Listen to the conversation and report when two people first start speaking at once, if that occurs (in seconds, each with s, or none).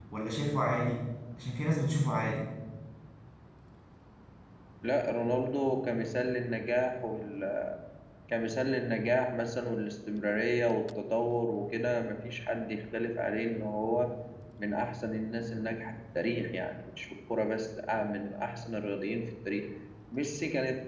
none